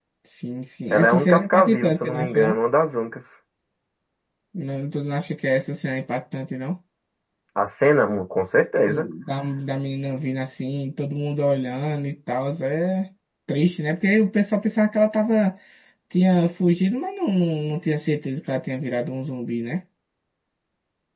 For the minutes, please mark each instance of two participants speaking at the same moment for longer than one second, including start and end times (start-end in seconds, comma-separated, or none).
0.9-2.6